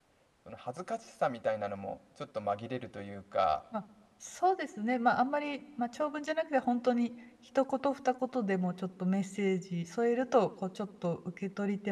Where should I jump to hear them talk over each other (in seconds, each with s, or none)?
none